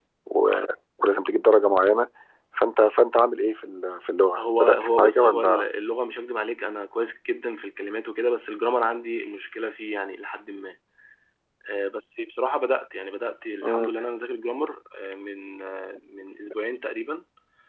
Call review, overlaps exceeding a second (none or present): present